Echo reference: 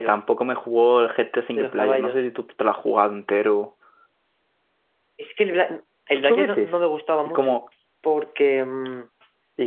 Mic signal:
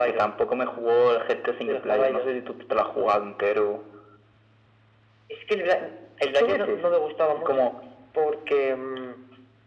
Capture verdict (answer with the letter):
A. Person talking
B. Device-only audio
B